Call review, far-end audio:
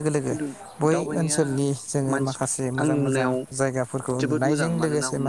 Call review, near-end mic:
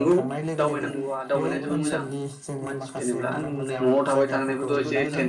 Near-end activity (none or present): present